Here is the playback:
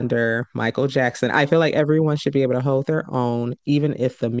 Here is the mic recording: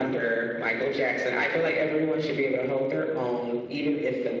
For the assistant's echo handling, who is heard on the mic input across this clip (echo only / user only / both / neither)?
echo only